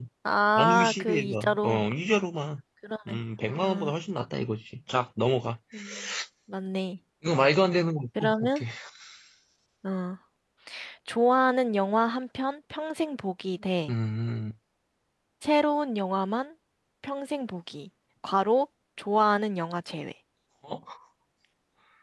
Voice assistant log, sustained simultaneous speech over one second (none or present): present